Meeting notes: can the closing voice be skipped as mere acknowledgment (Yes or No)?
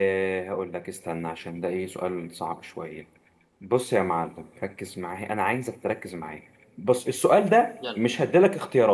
Yes